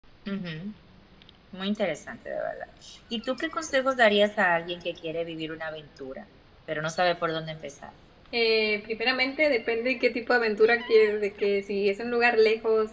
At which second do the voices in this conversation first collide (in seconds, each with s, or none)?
none